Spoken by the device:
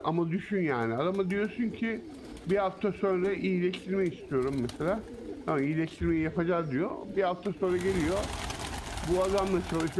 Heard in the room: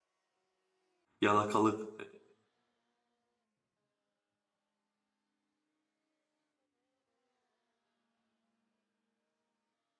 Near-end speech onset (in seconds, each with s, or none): 1.2 s